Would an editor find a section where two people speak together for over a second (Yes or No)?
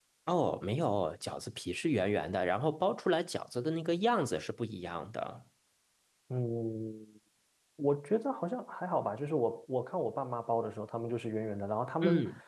No